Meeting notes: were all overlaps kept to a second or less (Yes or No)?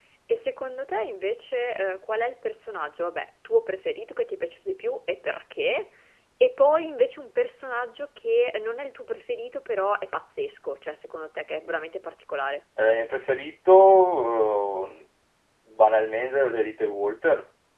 Yes